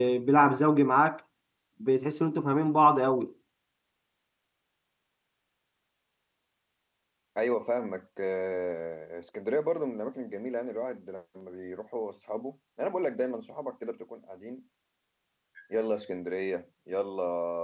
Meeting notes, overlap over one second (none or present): none